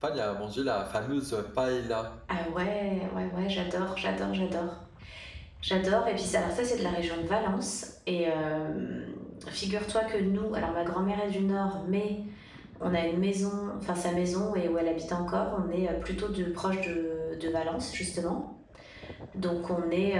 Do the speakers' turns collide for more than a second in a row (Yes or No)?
No